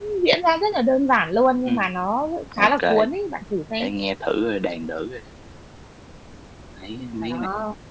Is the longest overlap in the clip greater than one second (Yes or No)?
No